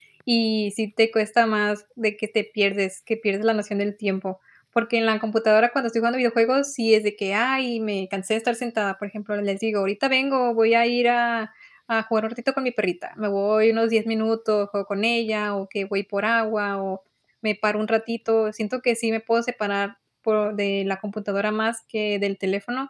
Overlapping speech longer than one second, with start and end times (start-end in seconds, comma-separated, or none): none